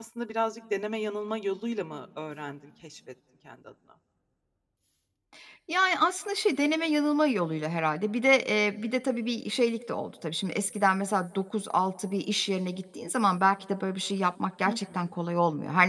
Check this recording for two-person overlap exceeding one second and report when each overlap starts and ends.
none

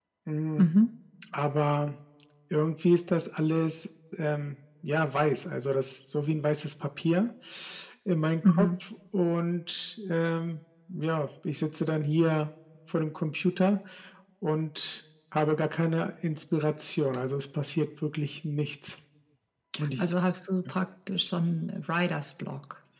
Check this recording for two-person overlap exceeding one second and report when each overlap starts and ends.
none

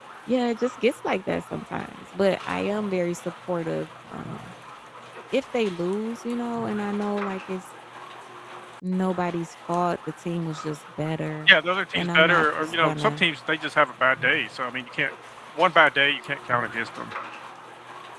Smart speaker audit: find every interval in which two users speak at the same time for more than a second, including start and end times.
11.9-13.2

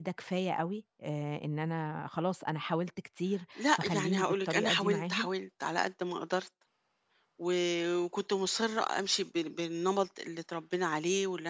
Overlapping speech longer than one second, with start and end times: 3.6-5.3

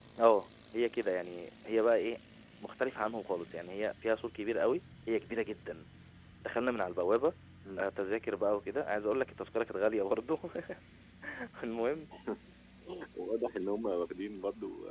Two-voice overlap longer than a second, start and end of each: none

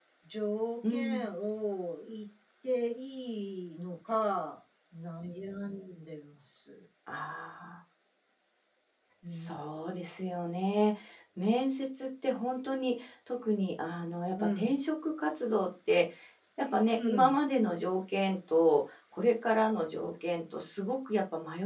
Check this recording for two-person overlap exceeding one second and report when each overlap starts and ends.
none

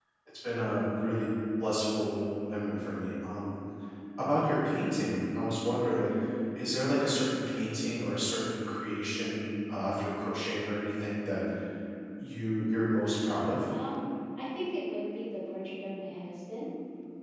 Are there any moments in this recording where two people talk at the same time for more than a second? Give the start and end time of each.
none

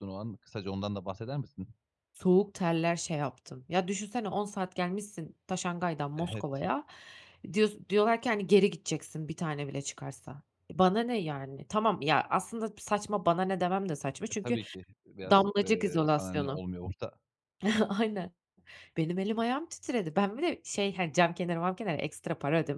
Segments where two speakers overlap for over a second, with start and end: 15.3-16.6

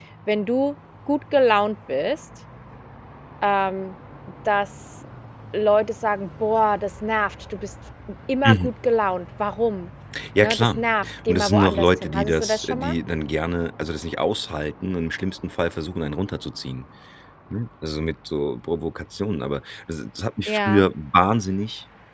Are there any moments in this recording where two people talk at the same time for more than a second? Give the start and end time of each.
11.3-13.0

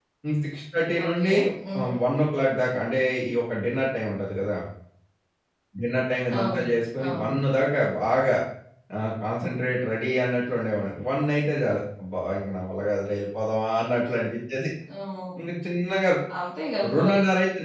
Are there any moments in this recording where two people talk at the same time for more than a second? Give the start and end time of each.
none

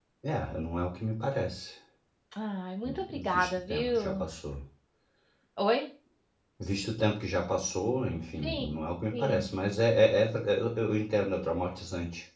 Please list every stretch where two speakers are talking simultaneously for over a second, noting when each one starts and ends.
2.9-4.2

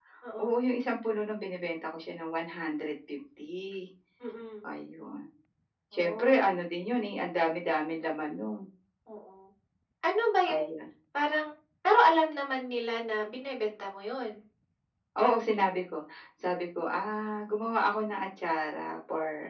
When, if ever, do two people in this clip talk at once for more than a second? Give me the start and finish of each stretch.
none

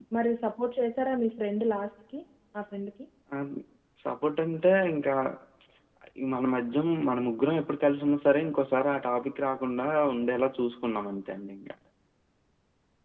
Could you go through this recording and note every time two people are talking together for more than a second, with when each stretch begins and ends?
none

